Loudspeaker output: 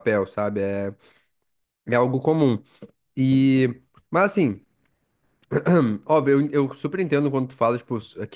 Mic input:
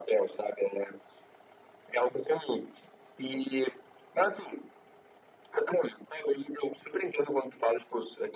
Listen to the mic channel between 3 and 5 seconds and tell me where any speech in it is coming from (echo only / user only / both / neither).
echo only